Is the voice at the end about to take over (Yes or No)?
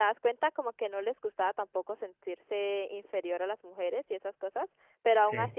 No